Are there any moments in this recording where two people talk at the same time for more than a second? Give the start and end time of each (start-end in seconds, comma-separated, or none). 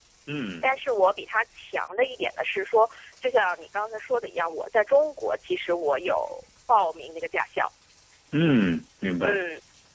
none